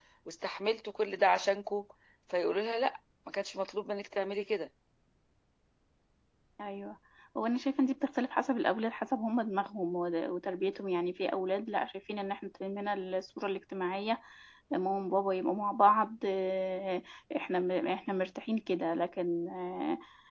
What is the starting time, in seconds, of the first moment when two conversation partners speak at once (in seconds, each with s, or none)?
none